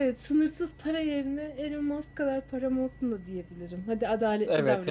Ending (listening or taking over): taking over